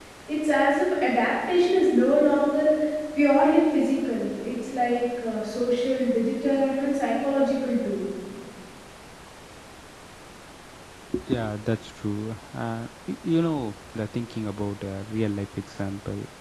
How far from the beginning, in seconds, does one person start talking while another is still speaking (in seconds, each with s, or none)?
none